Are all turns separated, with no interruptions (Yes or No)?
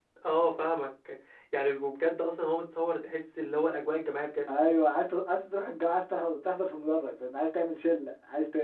Yes